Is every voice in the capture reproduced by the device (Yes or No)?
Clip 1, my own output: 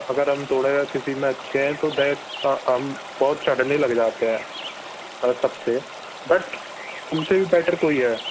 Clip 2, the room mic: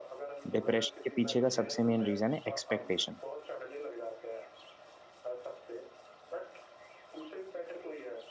No